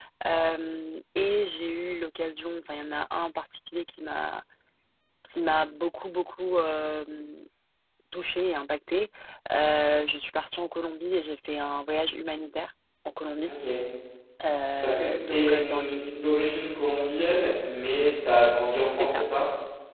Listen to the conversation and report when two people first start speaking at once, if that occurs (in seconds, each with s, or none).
14.8 s